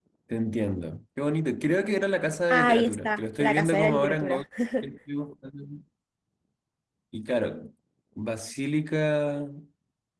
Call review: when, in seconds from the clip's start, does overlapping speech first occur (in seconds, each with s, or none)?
2.5 s